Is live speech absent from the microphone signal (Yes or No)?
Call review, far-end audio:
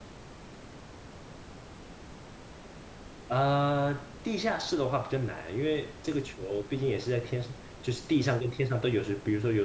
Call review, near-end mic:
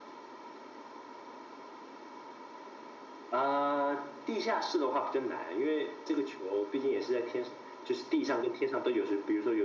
Yes